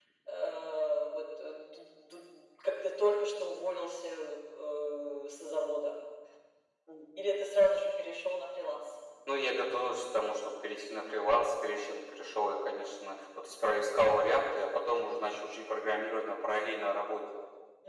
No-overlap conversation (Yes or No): Yes